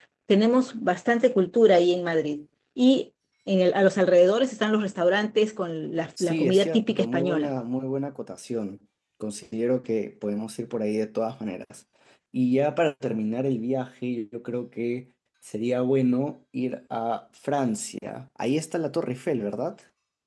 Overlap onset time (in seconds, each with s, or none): 6.2 s